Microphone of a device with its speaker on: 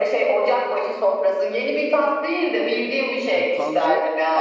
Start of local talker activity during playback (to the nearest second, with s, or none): 3 s